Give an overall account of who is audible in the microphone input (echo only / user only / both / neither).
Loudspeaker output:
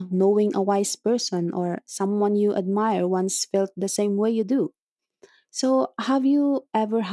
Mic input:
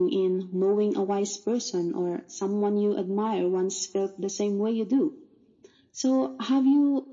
echo only